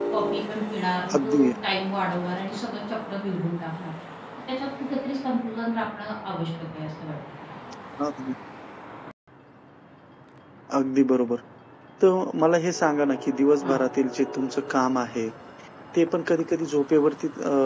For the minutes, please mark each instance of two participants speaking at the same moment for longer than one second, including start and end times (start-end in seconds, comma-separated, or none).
none